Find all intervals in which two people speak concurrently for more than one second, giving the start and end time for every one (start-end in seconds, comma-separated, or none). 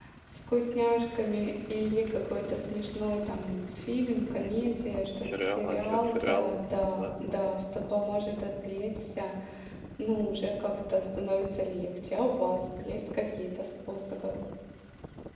5.2-7.5